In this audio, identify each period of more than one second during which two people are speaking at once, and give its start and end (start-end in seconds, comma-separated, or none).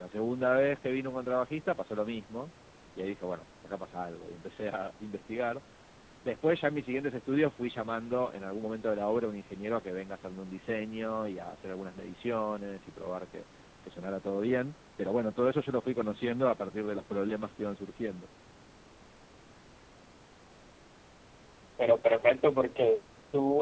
none